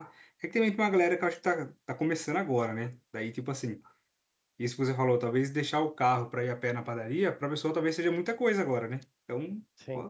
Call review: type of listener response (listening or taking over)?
listening